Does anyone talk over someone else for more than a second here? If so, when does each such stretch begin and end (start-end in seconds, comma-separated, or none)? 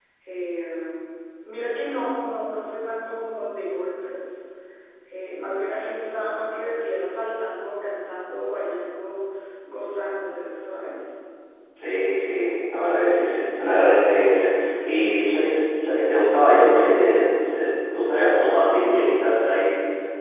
none